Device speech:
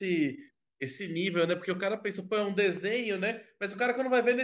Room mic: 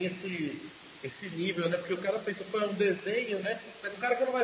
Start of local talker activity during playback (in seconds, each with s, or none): none